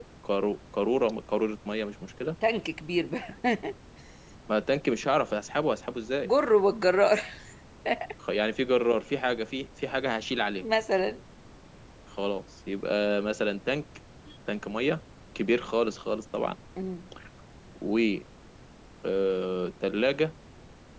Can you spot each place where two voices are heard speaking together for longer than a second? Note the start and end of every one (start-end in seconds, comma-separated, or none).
none